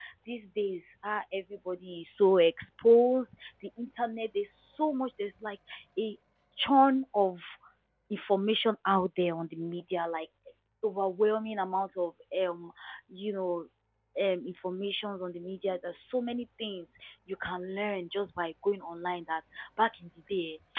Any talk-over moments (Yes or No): No